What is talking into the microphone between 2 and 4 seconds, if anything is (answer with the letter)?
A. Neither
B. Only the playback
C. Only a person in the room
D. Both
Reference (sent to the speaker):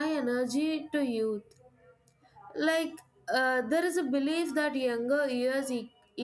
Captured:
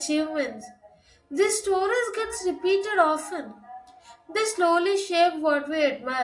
C